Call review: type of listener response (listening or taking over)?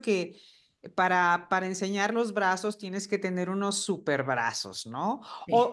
listening